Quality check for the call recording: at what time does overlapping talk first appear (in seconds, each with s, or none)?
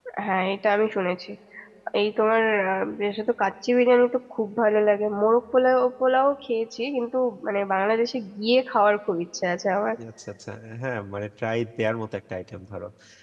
none